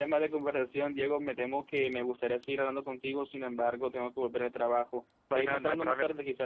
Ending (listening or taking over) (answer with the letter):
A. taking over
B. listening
A